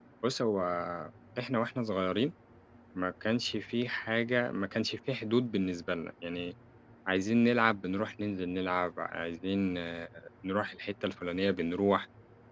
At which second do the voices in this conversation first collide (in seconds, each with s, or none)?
none